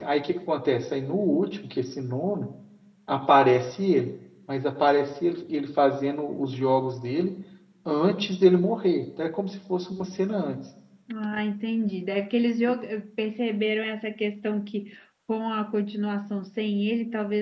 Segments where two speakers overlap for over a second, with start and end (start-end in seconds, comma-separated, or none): none